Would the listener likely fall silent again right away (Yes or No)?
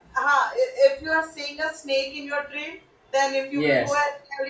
Yes